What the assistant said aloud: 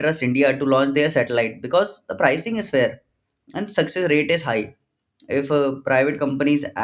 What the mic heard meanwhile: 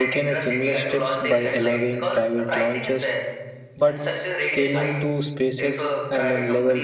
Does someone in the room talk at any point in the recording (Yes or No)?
Yes